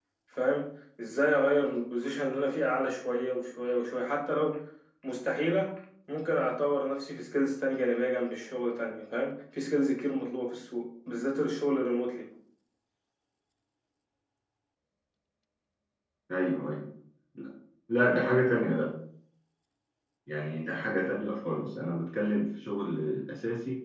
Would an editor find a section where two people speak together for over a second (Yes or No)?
No